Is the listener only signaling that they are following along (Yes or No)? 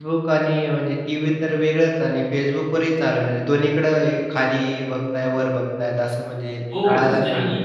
No